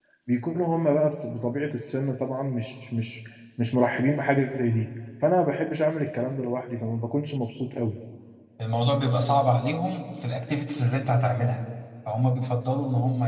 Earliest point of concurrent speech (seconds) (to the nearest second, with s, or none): none